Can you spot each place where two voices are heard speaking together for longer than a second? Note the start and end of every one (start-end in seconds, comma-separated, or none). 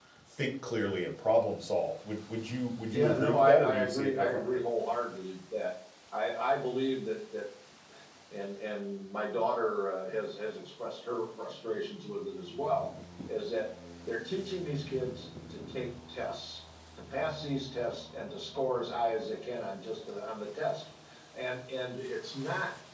2.9-4.6